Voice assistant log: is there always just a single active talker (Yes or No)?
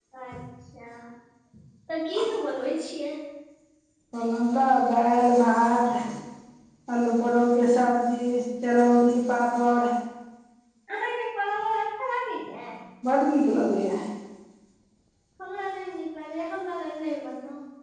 Yes